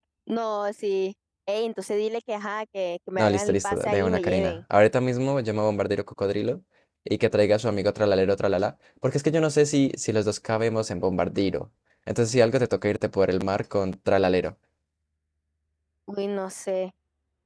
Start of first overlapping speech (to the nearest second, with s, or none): 3 s